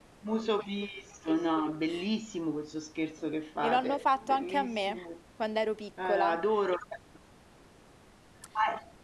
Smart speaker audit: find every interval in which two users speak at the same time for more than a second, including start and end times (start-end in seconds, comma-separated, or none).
3.6-5.0